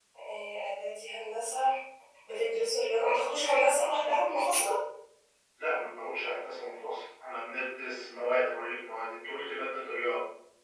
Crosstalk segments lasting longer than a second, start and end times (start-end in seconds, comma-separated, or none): none